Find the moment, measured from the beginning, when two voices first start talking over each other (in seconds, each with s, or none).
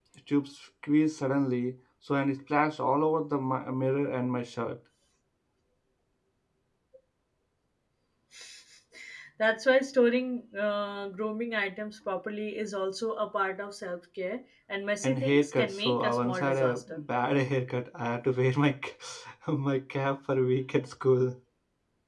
15.0 s